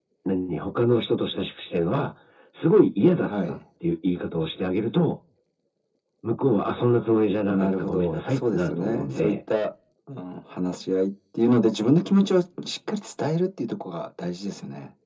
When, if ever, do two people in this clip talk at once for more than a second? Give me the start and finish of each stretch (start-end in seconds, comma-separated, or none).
7.5-9.4